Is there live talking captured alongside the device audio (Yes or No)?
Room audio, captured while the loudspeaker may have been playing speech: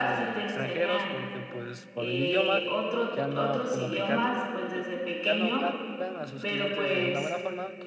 Yes